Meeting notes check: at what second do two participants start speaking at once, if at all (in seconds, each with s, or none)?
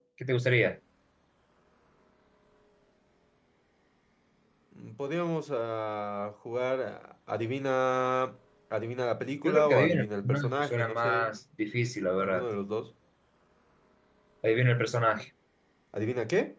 9.4 s